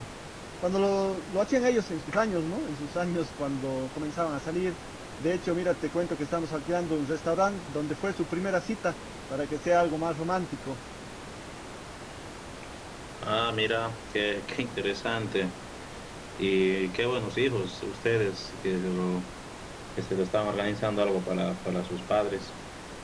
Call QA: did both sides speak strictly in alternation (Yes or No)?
Yes